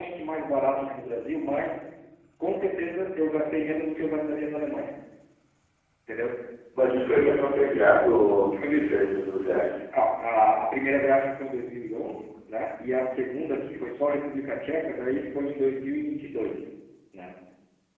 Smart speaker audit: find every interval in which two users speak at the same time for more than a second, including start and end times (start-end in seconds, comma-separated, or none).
none